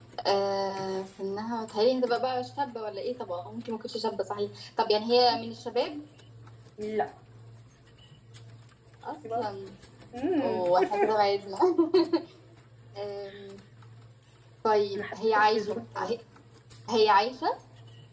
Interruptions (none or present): present